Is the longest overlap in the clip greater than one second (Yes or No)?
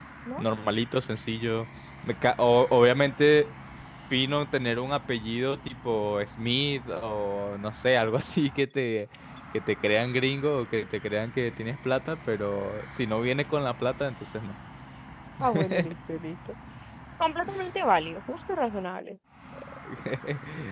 No